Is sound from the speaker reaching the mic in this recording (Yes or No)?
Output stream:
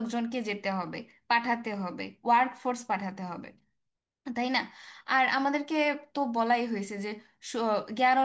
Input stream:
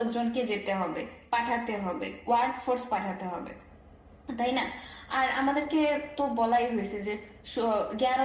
Yes